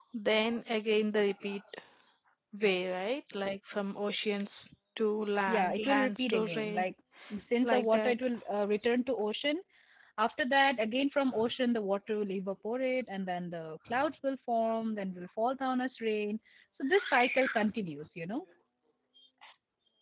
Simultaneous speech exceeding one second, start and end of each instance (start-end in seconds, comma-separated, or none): 5.5-6.8